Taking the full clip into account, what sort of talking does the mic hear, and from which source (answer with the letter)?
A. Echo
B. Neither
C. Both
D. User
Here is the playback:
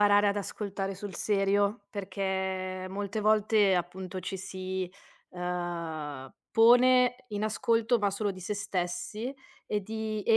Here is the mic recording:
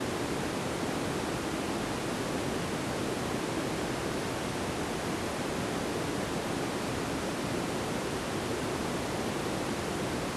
B